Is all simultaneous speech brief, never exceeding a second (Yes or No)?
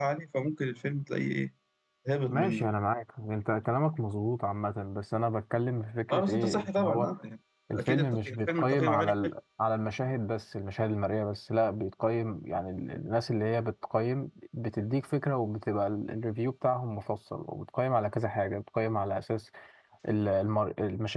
No